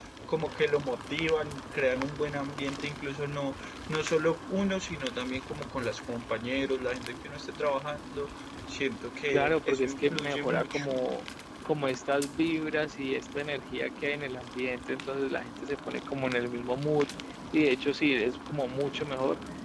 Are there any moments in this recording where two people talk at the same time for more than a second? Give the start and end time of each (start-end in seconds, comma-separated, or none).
9.3-11.0